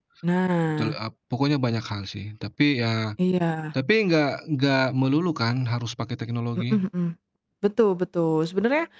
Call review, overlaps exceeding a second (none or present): none